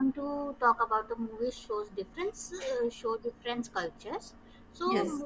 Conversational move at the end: listening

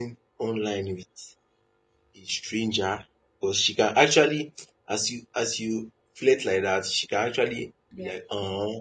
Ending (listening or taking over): listening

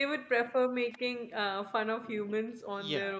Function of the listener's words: taking over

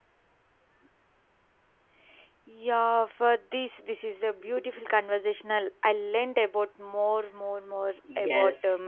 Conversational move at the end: taking over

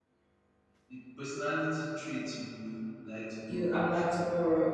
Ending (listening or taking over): taking over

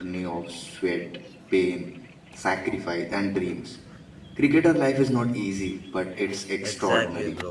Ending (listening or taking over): taking over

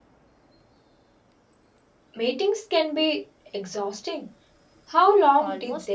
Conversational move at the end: taking over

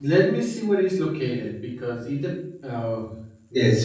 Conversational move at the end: taking over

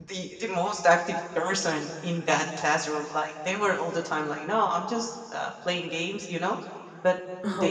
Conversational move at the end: listening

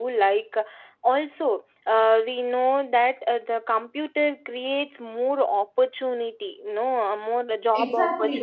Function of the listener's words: taking over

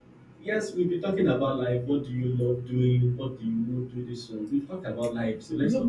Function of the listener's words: taking over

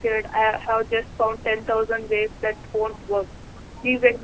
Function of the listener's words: listening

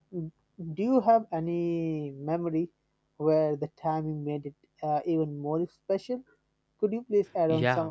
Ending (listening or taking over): taking over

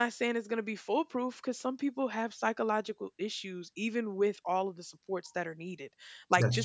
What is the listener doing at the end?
listening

